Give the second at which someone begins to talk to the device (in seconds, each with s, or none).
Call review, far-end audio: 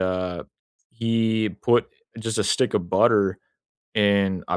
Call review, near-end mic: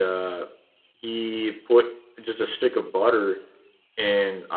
none